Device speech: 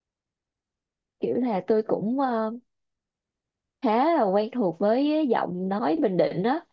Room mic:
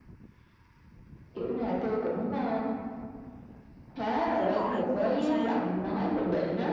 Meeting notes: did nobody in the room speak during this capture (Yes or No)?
No